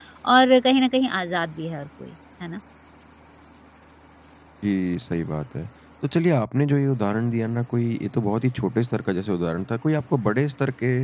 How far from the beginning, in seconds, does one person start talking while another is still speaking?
none

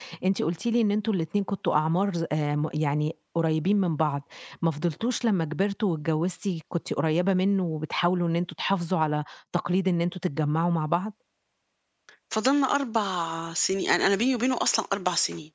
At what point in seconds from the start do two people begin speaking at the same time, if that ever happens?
none

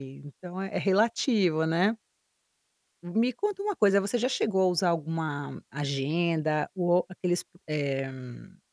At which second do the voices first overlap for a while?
none

